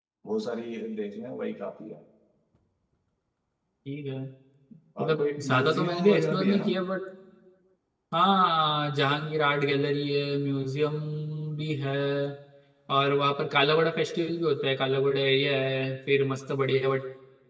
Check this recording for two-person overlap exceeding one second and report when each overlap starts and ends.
5.0-6.7

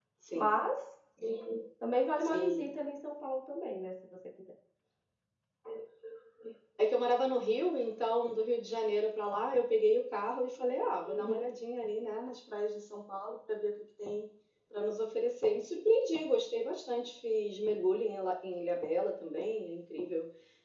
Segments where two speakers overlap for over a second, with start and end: none

